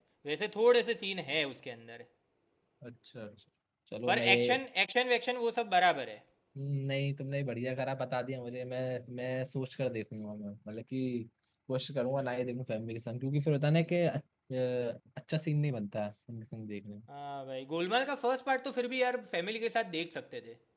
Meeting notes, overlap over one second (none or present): none